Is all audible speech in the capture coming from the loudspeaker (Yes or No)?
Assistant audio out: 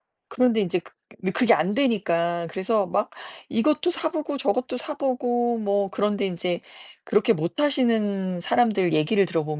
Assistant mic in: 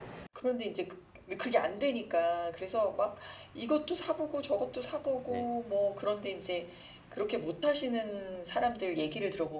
No